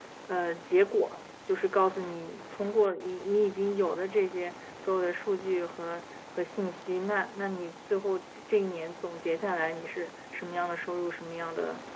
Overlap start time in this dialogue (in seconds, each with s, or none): none